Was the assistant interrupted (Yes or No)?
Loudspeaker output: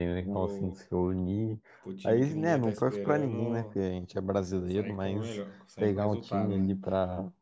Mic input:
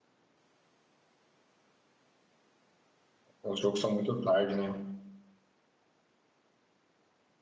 Yes